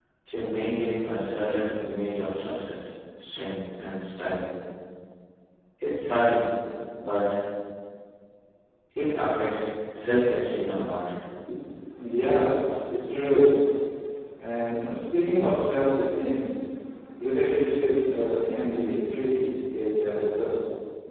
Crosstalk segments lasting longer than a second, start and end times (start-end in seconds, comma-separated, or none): none